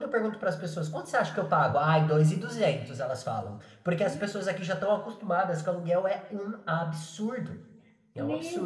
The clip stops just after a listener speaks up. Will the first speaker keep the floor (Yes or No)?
No